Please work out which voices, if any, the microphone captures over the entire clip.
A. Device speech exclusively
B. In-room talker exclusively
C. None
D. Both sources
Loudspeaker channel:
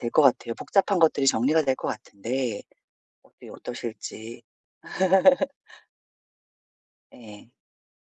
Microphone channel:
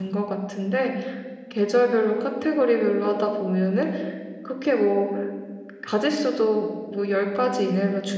B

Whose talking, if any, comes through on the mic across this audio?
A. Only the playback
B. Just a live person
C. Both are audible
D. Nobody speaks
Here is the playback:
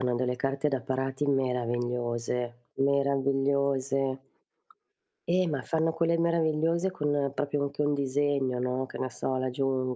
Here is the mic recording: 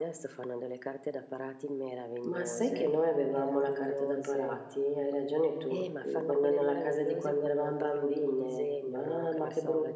C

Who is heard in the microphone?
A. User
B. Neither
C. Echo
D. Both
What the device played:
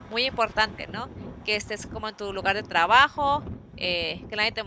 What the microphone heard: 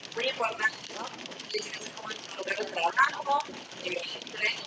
C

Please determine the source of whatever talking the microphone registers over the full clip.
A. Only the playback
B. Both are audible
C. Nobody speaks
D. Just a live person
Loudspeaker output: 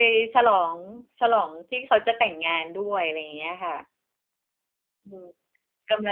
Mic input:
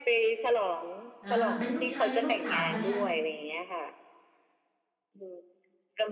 B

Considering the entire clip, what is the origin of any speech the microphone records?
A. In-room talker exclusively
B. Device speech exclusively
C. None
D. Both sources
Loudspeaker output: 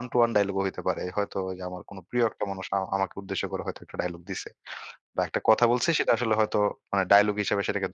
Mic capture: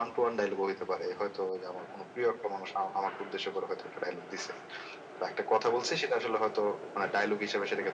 B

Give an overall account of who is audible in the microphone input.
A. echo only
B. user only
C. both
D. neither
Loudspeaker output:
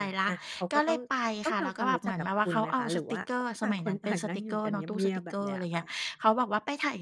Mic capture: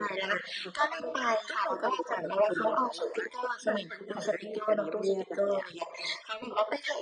A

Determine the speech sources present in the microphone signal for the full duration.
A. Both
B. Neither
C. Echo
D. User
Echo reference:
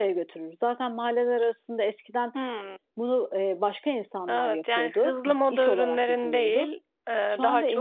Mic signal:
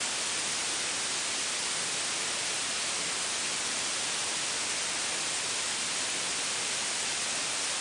B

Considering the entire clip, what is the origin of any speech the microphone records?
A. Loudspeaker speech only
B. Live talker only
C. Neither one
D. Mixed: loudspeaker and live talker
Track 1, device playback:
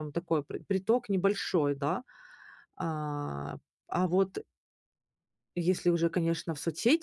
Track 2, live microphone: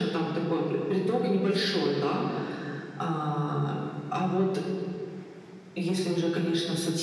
A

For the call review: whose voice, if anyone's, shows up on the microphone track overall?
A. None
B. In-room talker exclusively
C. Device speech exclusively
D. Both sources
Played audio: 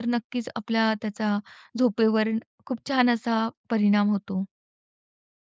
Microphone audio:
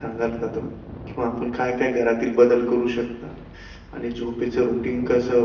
B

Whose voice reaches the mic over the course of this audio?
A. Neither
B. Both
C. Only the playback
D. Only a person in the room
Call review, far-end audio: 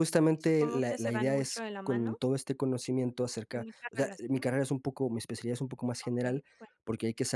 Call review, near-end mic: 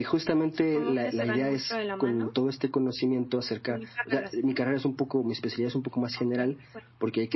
C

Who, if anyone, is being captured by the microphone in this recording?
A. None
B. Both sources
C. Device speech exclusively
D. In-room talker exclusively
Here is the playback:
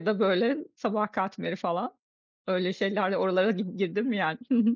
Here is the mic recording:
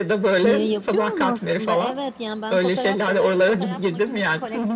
B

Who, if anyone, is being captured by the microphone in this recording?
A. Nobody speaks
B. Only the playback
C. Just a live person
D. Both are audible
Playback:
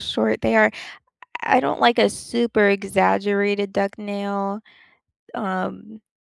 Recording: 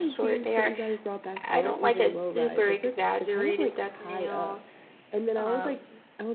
D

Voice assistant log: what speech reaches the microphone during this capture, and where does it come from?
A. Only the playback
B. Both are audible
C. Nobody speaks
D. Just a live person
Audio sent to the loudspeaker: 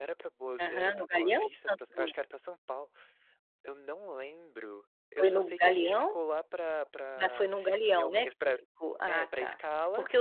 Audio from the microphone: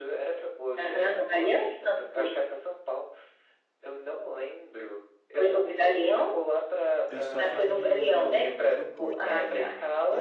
B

